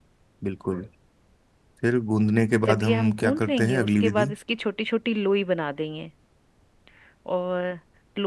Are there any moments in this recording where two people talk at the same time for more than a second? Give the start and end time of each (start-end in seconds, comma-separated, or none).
2.6-4.3